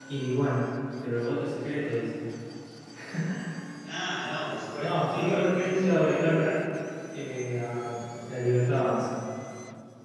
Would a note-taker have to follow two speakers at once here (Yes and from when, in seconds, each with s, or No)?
Yes, from 4.8 s